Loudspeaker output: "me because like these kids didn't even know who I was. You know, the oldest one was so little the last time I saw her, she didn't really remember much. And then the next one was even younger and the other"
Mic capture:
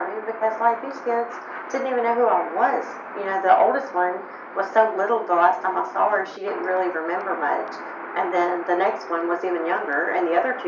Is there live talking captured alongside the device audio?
No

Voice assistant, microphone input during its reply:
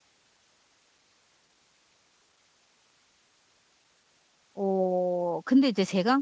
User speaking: Yes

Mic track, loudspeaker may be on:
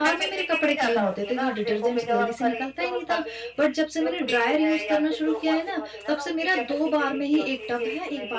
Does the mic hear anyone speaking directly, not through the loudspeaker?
Yes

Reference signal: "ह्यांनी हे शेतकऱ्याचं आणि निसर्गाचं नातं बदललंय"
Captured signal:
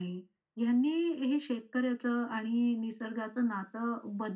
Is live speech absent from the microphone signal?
Yes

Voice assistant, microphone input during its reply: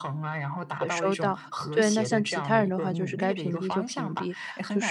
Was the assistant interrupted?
Yes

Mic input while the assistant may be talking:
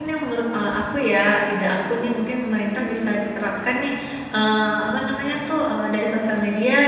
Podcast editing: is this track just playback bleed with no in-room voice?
No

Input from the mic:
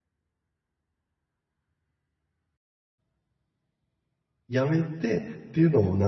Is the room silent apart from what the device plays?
No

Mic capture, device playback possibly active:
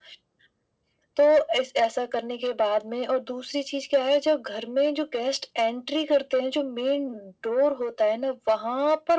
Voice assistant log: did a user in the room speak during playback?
No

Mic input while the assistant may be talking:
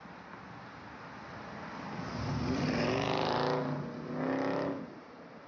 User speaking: No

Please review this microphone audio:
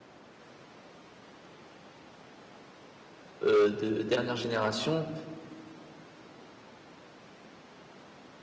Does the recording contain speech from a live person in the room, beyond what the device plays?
Yes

